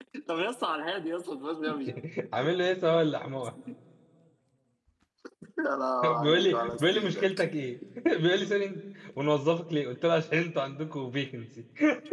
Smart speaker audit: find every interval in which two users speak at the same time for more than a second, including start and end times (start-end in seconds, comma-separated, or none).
6.0-7.3